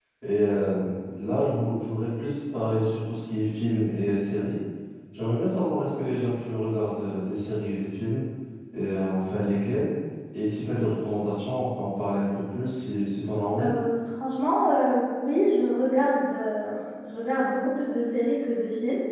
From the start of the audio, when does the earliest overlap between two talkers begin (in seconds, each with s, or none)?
none